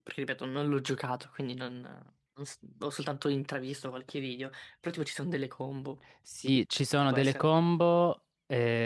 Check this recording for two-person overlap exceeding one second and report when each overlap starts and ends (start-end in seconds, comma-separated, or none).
none